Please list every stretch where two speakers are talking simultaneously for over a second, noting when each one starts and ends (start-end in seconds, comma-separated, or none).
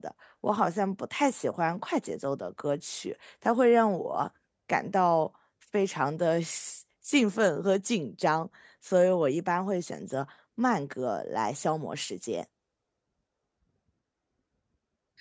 none